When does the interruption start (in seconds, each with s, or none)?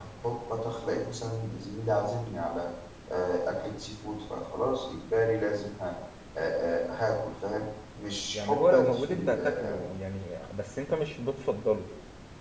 8.3 s